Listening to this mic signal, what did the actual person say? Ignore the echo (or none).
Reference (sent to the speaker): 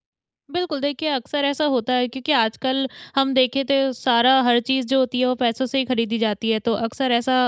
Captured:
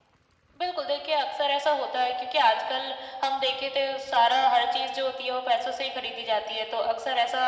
none